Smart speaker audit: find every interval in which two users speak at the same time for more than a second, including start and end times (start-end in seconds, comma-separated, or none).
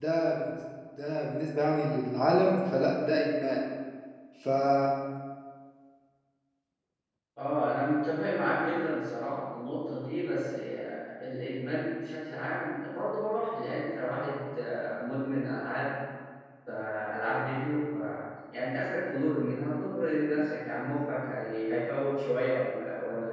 none